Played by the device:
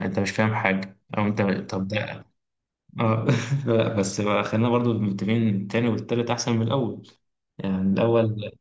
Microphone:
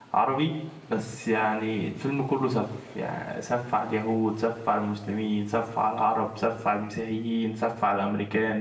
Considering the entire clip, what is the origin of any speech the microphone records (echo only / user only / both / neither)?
user only